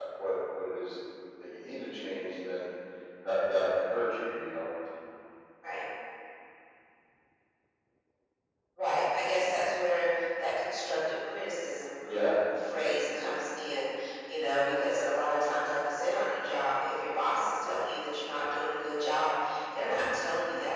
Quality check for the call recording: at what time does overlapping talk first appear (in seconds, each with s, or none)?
none